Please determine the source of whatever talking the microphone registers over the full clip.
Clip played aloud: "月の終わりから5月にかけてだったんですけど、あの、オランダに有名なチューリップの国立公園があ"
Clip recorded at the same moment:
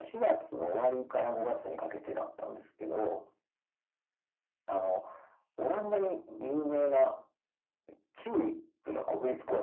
echo only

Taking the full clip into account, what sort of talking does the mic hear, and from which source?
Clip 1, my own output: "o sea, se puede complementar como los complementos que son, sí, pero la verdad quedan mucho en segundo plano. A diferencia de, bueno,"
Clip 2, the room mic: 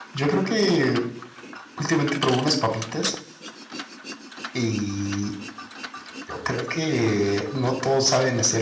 user only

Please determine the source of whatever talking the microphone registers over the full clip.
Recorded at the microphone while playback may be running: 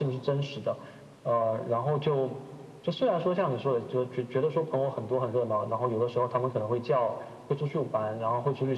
echo only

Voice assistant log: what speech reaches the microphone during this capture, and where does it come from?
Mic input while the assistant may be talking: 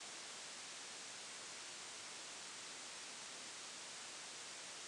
neither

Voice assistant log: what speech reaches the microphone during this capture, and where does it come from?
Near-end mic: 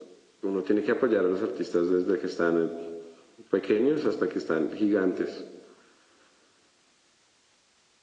echo only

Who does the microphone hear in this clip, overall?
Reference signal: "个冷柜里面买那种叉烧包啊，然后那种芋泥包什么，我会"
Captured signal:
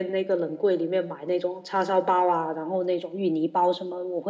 echo only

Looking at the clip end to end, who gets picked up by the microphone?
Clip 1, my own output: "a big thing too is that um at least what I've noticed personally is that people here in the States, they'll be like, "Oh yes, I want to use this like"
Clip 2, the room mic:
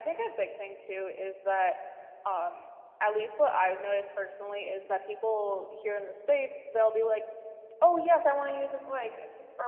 echo only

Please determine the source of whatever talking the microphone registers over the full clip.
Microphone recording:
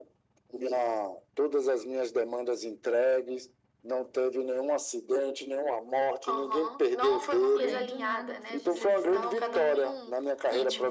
both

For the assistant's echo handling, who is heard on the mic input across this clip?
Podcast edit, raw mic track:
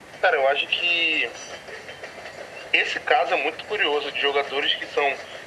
echo only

